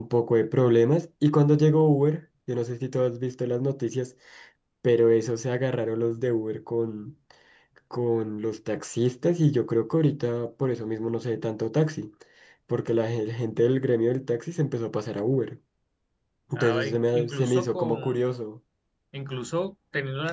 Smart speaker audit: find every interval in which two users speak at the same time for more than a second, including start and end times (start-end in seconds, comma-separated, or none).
16.5-18.0